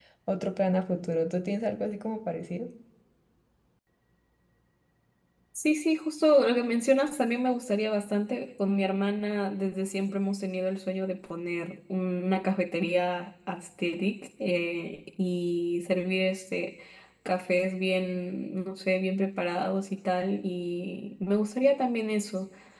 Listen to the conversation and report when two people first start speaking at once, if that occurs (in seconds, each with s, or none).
none